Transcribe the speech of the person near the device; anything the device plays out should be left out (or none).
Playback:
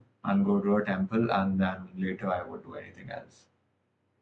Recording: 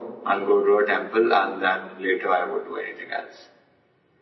none